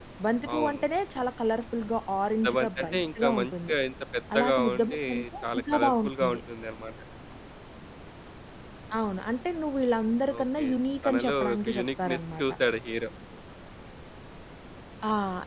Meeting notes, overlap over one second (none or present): present